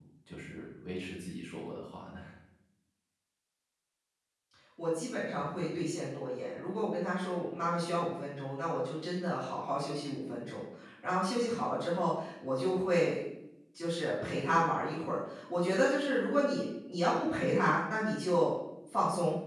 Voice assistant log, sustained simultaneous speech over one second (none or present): none